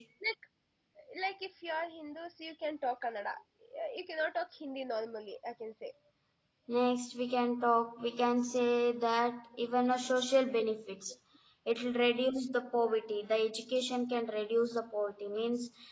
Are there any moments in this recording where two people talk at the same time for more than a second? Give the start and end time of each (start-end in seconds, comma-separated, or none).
none